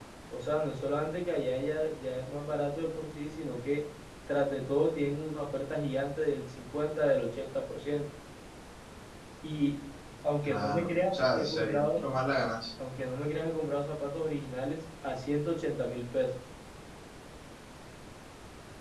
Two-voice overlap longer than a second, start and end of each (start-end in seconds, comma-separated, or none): 10.4-12.1